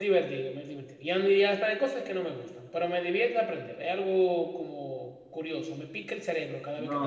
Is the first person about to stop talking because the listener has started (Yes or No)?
Yes